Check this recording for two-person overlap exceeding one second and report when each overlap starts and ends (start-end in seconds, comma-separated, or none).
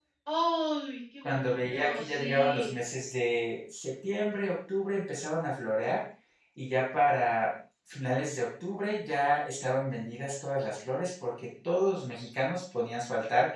1.2-2.8